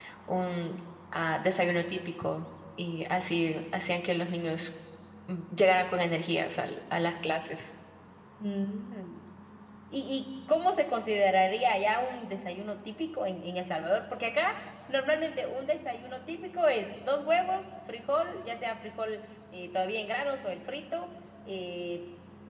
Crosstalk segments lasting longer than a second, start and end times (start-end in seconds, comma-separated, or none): none